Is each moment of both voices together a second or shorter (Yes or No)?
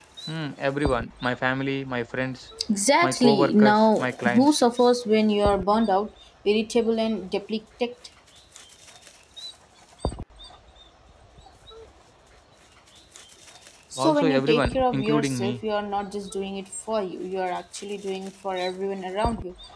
No